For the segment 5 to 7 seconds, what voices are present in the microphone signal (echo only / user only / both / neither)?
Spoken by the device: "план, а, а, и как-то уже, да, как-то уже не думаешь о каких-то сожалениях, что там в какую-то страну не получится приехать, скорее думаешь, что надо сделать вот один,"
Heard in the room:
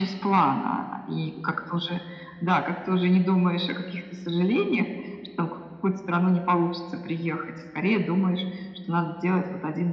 echo only